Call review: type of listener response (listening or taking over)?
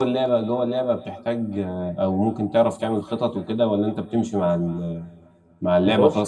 listening